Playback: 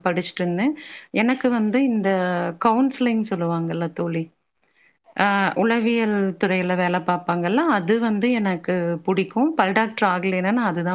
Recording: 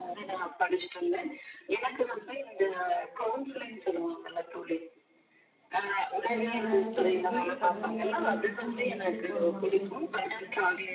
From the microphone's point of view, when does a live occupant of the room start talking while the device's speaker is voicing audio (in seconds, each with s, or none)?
6.3 s